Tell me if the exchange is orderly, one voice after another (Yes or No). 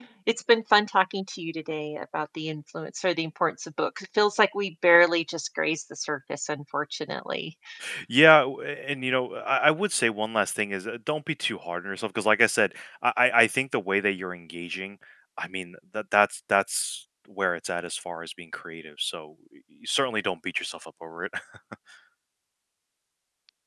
Yes